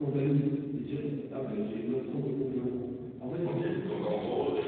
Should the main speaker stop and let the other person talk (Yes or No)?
Yes